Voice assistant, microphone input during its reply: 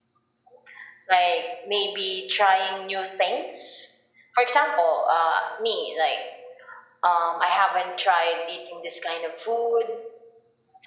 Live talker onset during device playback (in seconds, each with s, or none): none